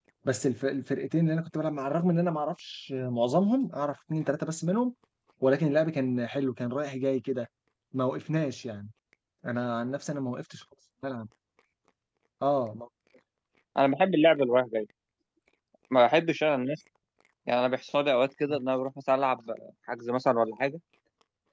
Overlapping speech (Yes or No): No